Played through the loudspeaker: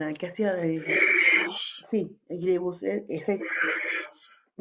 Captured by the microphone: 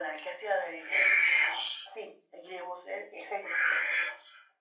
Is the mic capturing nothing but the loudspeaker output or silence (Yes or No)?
Yes